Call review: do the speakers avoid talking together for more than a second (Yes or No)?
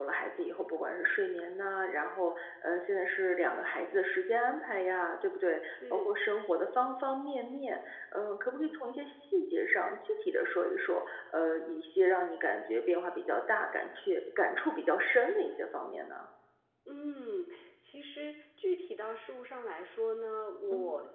Yes